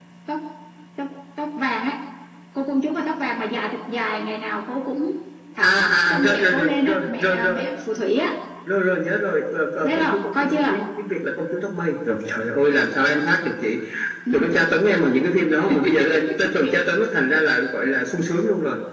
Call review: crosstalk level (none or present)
present